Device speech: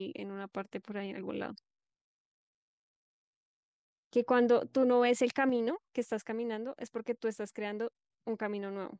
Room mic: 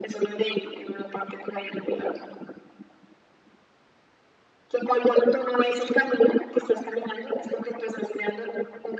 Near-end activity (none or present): none